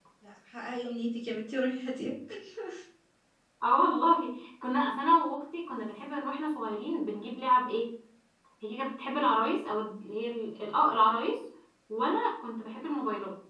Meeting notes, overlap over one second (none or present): none